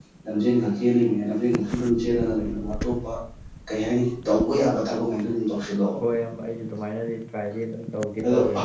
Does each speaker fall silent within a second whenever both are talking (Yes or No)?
Yes